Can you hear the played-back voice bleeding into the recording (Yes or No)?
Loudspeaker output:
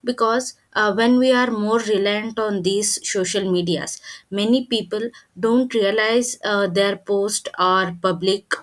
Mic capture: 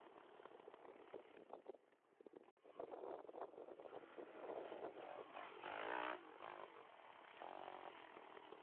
No